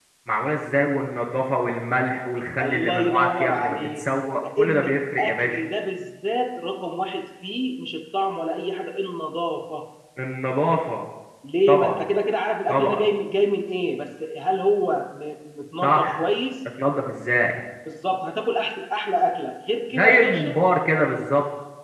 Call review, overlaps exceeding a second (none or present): present